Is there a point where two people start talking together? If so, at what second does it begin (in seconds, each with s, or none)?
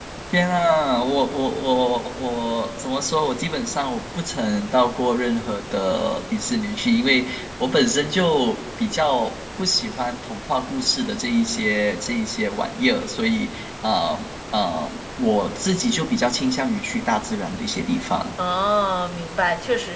none